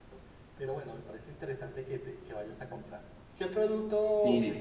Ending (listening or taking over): taking over